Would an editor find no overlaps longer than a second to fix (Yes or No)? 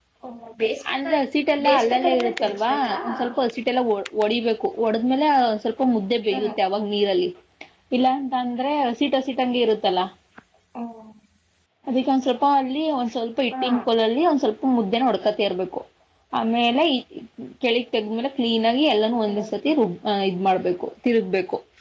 No